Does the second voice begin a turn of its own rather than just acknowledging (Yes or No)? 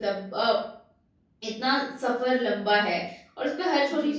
No